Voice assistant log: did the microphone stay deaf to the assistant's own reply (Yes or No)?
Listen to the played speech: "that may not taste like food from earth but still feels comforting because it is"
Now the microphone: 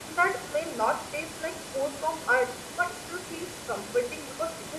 No